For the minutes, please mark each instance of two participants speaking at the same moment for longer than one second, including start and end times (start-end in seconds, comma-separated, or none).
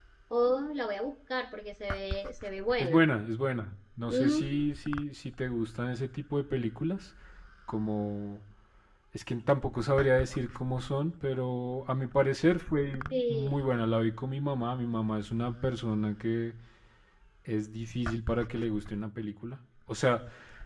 none